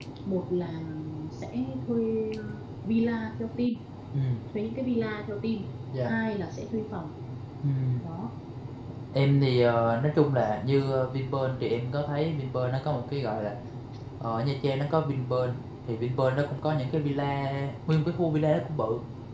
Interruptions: none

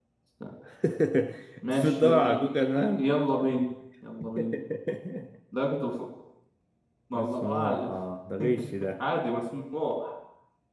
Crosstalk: present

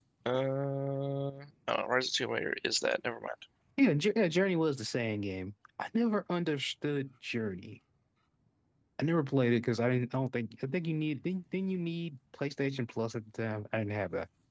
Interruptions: none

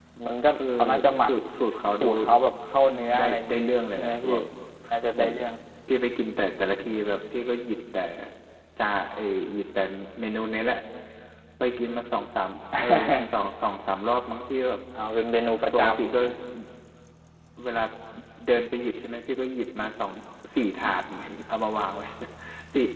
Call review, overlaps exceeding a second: present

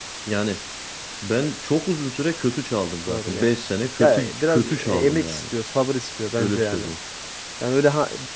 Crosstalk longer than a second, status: present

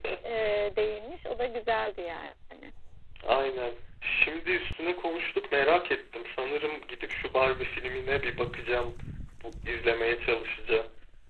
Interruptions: none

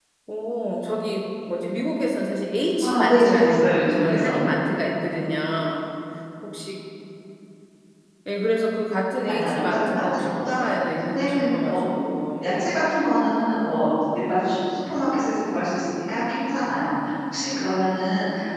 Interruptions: present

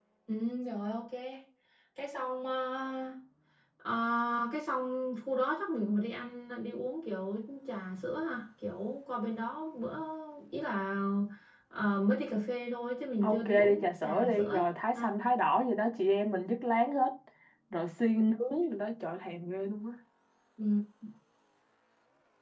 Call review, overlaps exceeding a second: present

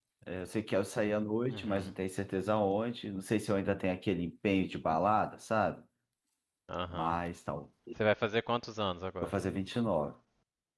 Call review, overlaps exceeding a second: none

